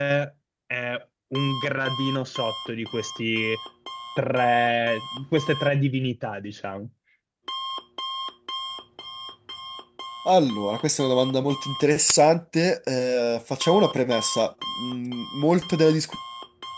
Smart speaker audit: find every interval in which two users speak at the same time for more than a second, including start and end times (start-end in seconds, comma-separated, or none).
none